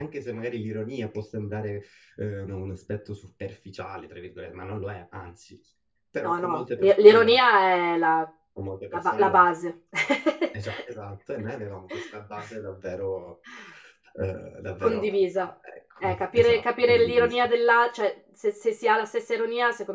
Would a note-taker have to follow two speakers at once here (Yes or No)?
Yes